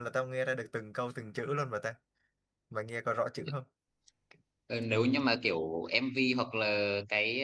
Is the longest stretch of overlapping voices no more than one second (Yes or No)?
Yes